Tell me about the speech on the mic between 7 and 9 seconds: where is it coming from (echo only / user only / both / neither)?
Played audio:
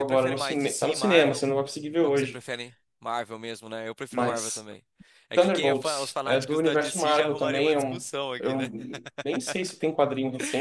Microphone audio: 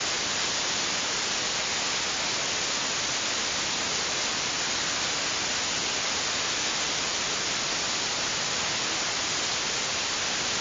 neither